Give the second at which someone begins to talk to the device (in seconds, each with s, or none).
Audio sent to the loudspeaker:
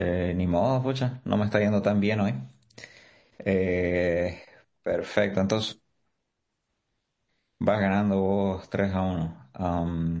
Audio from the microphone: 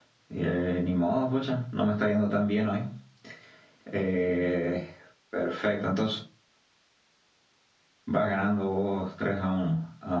none